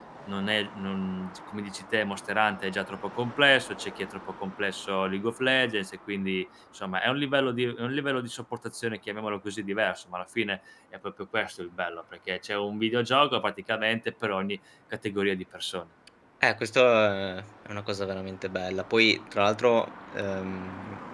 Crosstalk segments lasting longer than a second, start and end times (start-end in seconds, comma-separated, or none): none